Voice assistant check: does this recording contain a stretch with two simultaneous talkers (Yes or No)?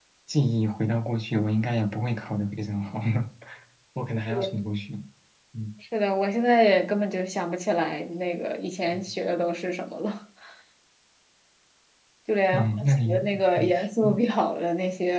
Yes